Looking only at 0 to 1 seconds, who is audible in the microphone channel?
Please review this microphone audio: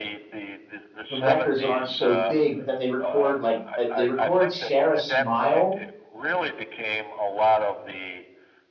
echo only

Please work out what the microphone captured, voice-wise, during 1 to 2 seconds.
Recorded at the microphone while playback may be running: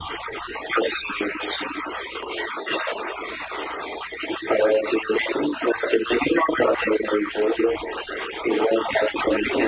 echo only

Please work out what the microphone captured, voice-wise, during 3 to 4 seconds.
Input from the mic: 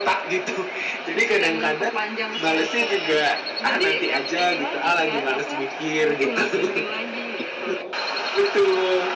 echo only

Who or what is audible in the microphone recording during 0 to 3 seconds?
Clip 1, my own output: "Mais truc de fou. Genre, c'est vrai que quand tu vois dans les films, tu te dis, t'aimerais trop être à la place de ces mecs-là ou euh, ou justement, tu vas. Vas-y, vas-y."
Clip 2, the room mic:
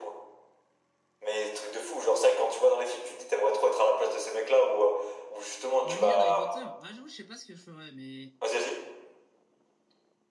echo only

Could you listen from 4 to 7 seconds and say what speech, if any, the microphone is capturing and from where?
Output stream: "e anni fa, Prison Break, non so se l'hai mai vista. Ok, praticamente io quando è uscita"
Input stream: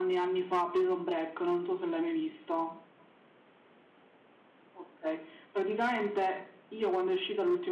echo only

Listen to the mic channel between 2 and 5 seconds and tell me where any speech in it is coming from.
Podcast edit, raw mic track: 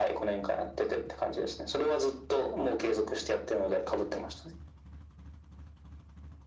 echo only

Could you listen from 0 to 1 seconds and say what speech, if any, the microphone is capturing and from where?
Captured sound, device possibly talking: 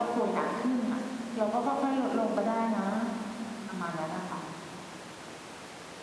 echo only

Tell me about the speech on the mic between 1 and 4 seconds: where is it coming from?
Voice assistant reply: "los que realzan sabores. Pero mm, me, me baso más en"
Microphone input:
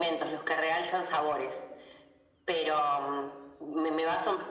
echo only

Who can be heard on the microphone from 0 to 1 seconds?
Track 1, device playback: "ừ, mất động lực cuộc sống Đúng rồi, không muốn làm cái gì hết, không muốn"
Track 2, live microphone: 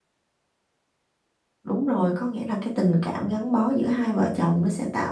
neither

